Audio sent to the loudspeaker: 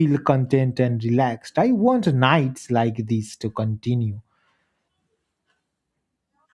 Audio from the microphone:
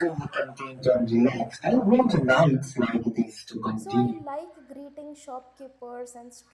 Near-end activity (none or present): present